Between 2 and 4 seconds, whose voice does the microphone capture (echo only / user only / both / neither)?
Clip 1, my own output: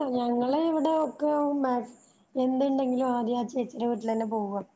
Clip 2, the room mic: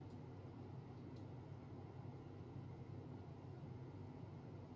neither